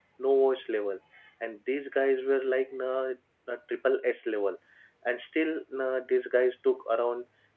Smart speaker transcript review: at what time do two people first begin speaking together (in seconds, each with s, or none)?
none